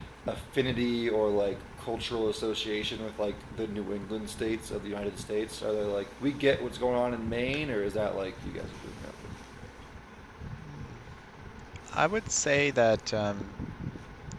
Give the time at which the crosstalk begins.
none

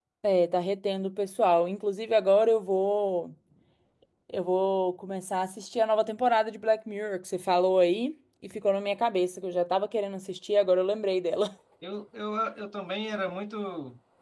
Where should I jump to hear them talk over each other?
none

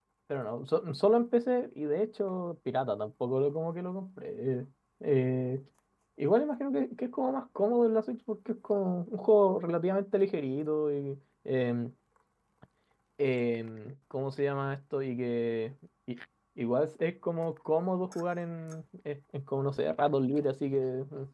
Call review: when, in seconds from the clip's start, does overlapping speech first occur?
none

